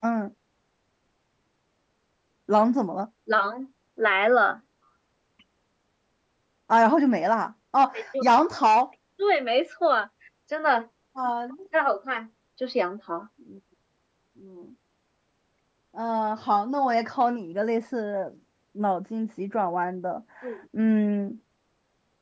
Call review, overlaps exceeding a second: none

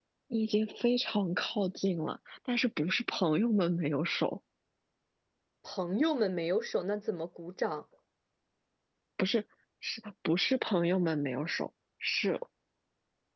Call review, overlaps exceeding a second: none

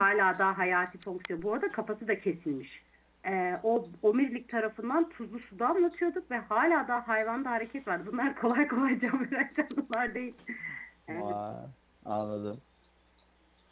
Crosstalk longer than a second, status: none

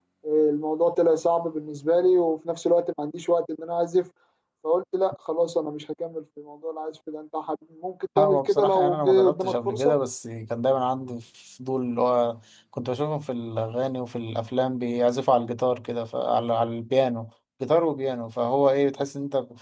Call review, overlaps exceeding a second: present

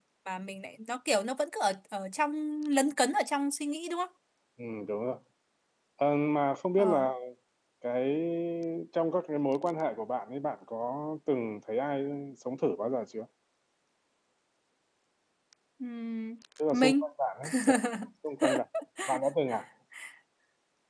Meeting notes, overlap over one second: none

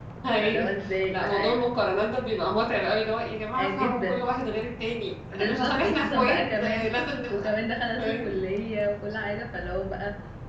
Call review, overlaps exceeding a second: present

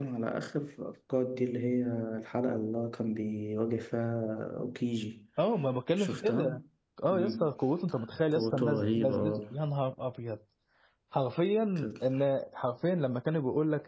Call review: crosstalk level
present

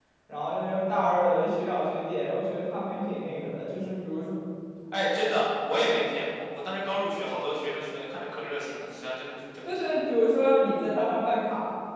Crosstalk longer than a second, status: none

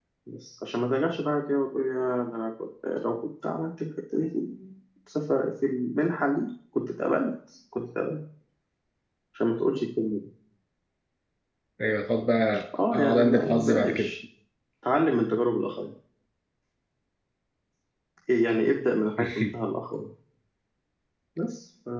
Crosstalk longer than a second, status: present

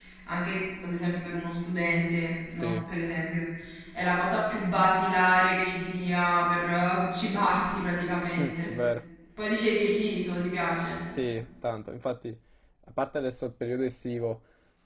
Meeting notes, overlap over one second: none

